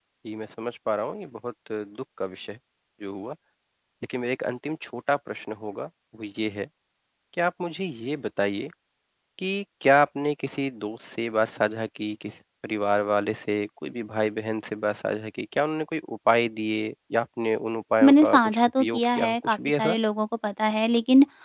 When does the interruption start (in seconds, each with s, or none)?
18.0 s